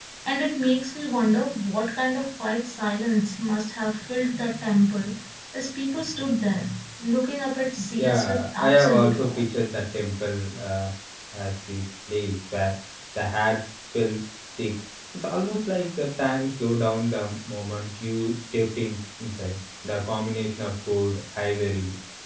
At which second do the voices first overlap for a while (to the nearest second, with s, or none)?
8 s